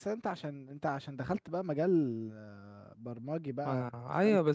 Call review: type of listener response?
taking over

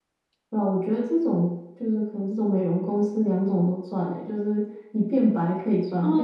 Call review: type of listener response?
taking over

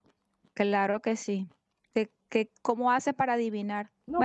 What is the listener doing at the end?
taking over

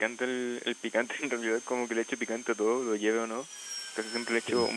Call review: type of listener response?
listening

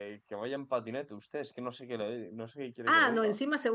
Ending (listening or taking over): taking over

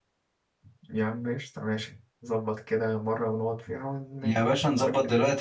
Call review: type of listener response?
taking over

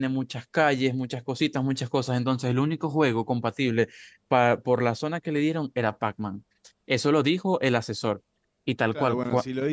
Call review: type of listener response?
taking over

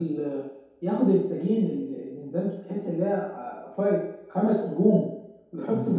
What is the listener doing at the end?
listening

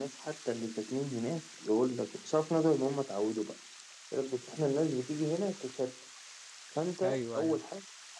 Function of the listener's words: listening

